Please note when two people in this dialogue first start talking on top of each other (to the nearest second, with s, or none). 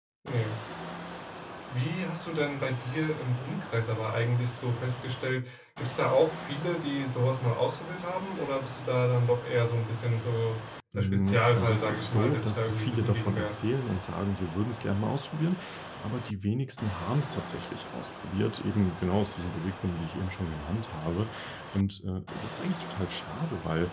11 s